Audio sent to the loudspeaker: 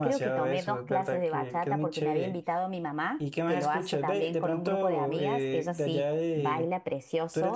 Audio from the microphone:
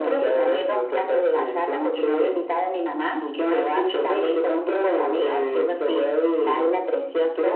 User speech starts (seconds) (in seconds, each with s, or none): none